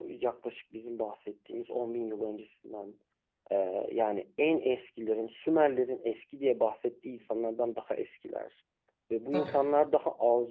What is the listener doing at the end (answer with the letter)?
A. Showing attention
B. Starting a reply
A